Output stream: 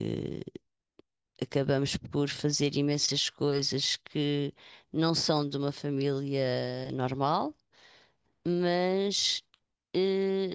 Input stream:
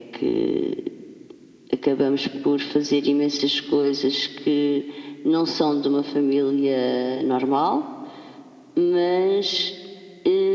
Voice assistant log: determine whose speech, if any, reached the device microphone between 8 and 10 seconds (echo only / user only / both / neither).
echo only